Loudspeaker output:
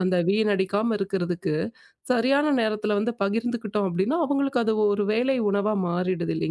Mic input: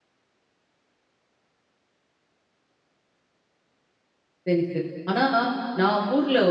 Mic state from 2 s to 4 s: neither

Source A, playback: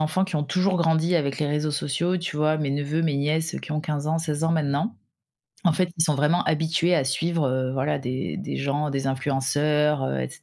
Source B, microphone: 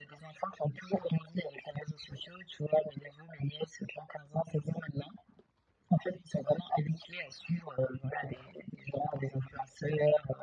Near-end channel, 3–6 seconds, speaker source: echo only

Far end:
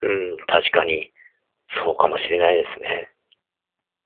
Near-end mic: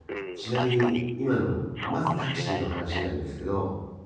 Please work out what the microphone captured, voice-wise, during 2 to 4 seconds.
both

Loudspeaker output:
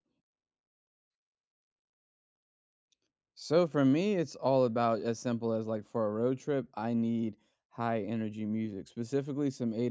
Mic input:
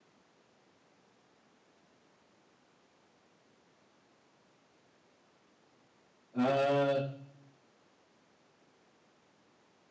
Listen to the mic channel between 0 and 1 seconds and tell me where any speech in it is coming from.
neither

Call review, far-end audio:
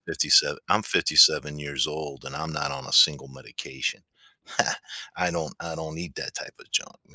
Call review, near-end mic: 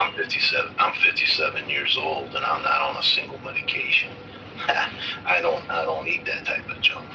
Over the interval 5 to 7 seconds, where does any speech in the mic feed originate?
echo only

